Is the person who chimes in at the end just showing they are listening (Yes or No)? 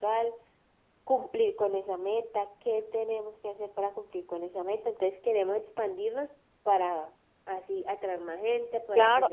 No